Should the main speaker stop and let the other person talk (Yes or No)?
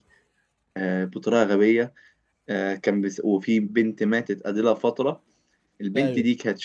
No